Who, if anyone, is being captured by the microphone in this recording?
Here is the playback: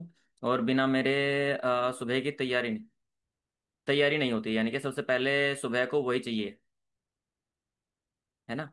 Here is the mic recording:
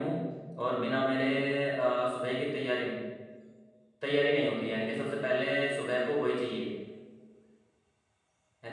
echo only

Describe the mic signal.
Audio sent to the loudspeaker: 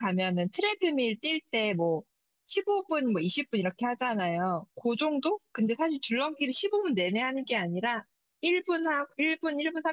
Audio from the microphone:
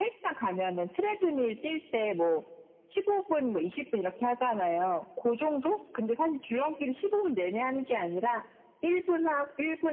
echo only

